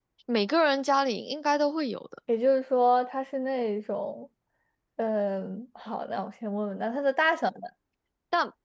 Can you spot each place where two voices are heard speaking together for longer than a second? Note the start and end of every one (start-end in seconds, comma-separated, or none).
none